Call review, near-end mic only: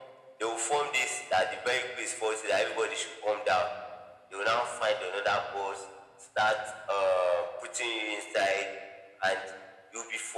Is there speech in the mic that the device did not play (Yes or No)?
No